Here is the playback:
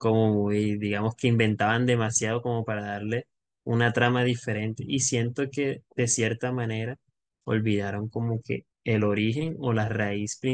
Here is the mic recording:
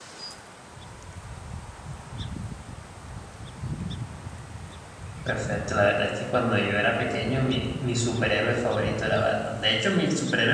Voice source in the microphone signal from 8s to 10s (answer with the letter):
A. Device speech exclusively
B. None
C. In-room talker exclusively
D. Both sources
C